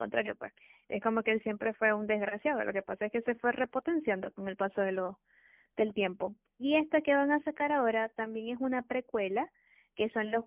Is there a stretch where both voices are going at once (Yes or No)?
No